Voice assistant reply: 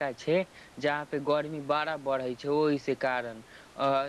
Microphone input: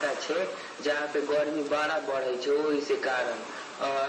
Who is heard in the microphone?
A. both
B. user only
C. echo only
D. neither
C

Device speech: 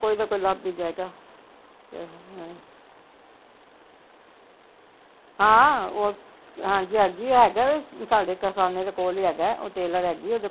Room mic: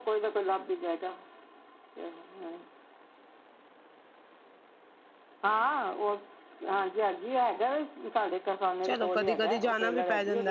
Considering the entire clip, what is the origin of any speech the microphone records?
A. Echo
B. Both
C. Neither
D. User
B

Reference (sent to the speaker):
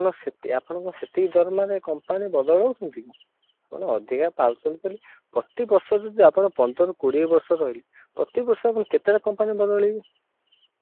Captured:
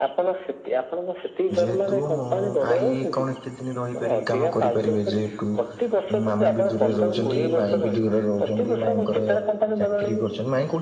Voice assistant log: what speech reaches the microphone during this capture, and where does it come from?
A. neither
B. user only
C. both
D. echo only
C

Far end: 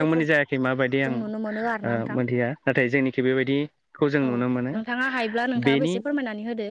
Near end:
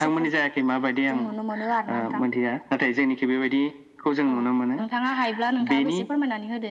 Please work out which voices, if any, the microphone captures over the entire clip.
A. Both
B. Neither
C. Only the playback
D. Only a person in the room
C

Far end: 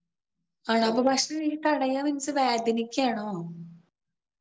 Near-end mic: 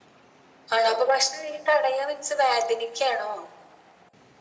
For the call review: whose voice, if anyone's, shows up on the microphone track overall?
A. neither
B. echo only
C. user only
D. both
B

